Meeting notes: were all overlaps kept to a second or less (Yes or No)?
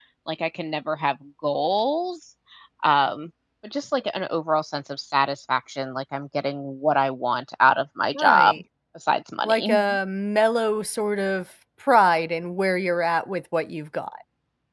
Yes